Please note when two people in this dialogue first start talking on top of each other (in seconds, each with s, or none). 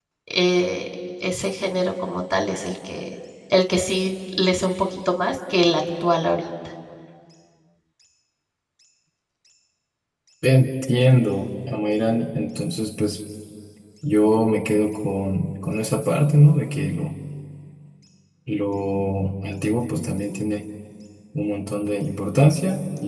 none